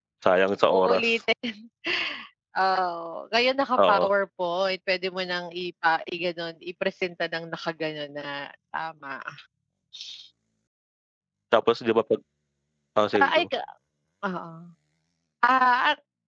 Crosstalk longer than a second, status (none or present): none